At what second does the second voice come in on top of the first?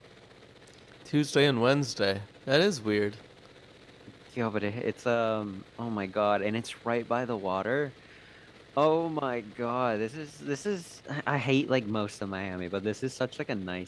none

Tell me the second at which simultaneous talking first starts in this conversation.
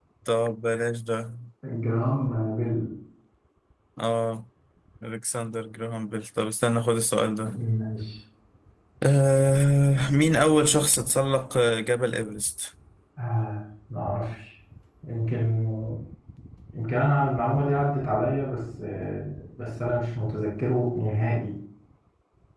none

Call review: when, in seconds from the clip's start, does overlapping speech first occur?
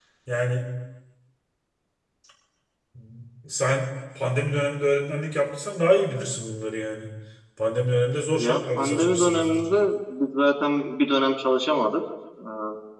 8.4 s

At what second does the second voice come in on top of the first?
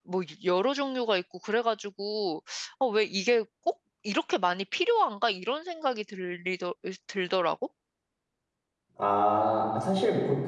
none

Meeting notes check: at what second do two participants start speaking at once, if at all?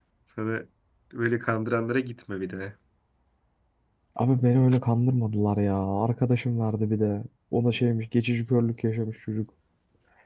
none

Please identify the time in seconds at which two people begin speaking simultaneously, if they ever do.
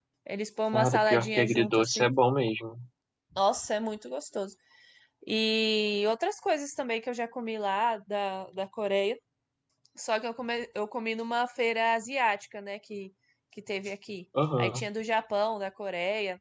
0.7 s

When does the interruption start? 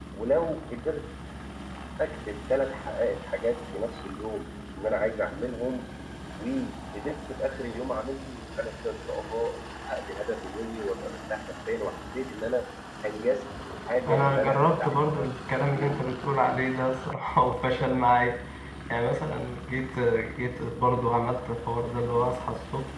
14.1 s

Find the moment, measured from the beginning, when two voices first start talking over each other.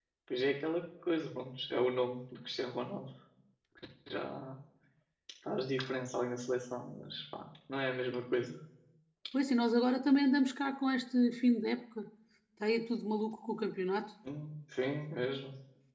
none

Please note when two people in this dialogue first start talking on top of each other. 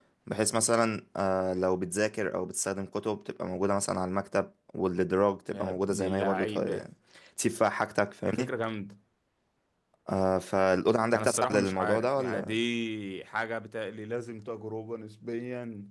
5.5 s

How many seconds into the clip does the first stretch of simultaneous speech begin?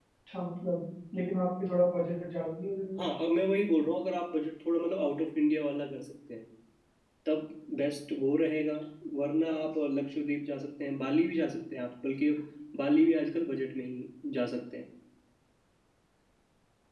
none

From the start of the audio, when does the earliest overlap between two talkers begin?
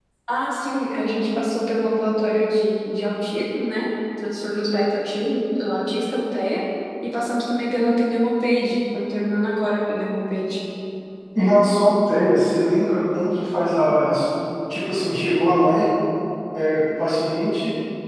none

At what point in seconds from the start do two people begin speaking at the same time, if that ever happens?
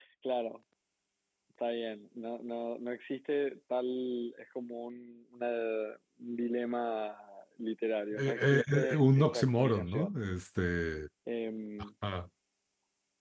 8.2 s

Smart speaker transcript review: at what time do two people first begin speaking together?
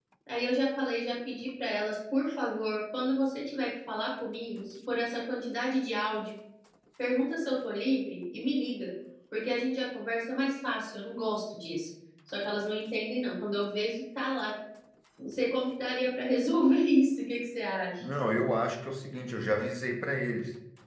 none

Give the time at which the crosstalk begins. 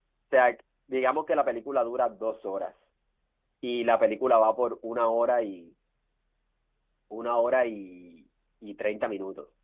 none

